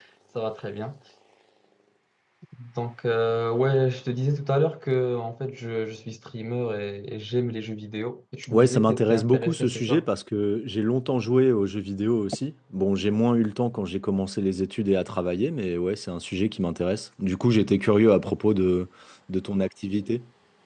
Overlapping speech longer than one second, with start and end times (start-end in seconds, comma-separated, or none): 8.5-10.0